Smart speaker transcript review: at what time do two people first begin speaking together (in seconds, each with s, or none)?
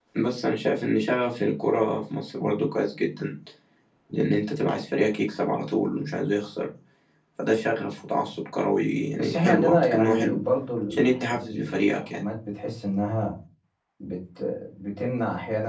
9.2 s